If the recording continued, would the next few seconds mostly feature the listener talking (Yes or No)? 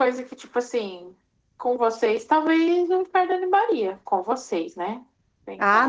Yes